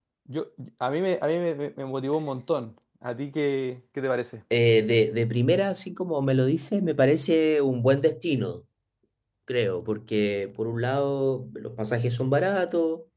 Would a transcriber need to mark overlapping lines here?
No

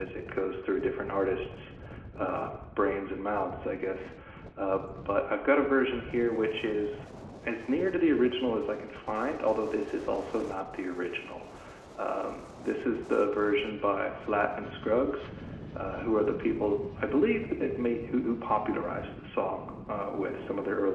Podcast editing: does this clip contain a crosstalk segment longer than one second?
No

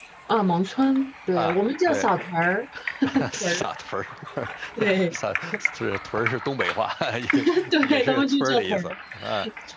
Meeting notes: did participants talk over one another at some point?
Yes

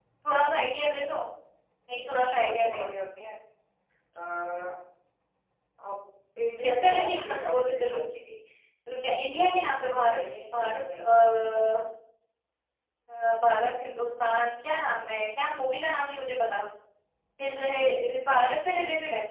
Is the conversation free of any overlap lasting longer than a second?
No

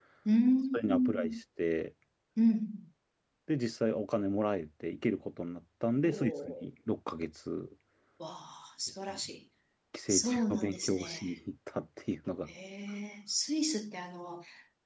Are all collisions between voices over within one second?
No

